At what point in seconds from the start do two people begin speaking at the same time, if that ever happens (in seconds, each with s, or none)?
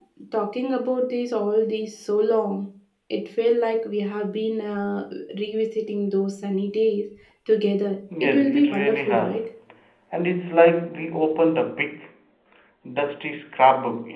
8.2 s